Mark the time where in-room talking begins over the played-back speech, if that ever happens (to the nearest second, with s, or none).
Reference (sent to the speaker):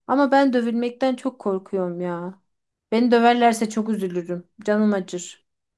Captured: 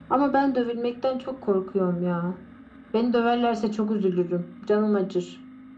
none